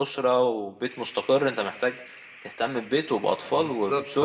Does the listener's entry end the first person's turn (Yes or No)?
No